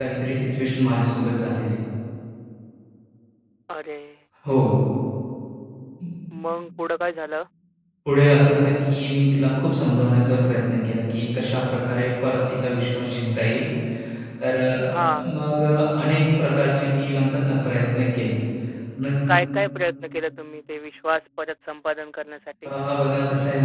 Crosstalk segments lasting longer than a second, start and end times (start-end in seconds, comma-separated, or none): none